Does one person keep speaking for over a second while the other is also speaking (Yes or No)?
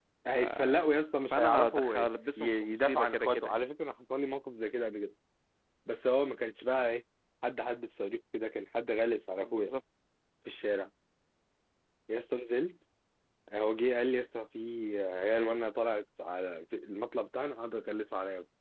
Yes